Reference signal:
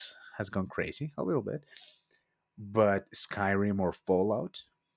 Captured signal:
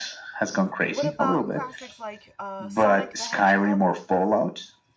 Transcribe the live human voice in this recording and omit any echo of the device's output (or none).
what about classics like uh, Sonic the Hedgehog?